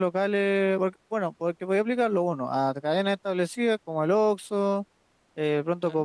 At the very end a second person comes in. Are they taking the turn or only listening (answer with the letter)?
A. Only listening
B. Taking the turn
A